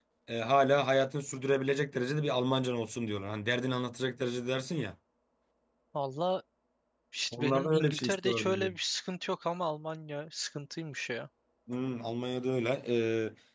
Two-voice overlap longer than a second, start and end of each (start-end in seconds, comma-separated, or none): 7.3-8.7